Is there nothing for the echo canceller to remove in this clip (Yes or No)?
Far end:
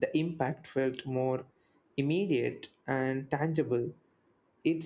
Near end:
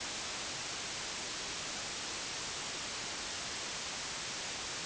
Yes